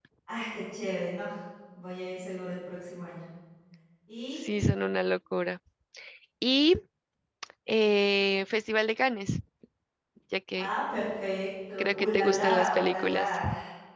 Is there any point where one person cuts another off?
Yes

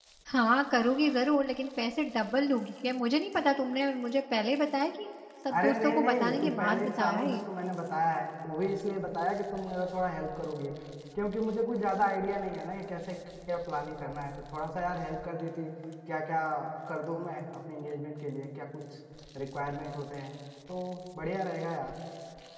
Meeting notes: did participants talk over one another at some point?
Yes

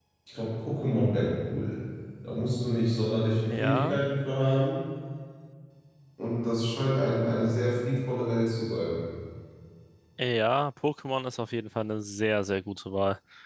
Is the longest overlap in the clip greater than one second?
No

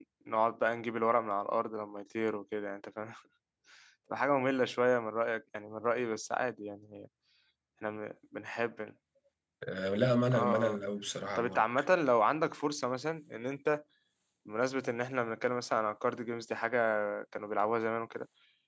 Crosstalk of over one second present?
No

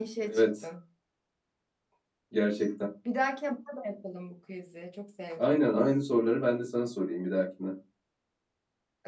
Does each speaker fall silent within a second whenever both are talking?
Yes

